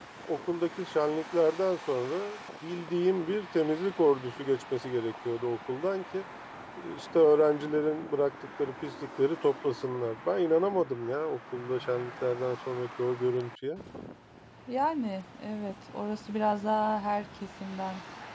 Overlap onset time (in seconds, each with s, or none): none